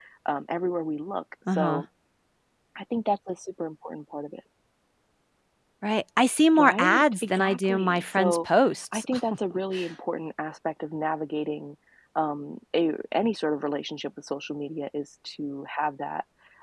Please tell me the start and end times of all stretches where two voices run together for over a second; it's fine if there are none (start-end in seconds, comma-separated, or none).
6.6-8.4